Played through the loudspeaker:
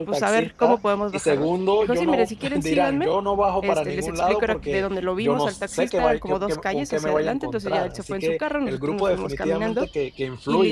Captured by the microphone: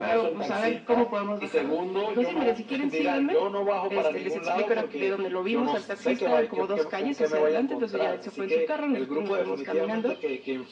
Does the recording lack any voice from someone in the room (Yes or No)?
Yes